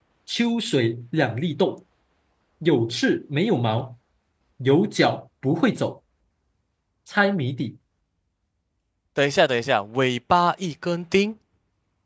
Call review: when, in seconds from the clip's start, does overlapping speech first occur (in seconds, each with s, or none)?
none